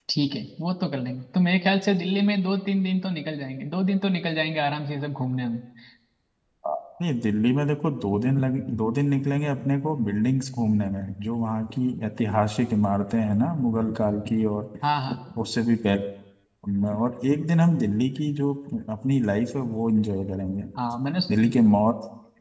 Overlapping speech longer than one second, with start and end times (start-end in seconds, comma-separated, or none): none